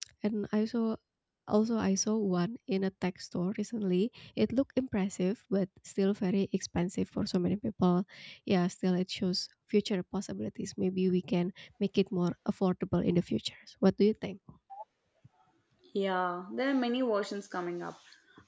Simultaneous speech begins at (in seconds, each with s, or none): none